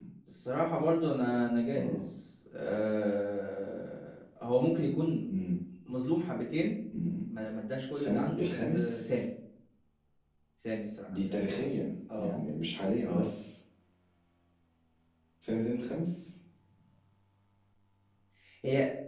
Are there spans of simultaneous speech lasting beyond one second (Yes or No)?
Yes